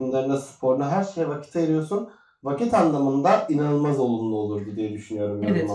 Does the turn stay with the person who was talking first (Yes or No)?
No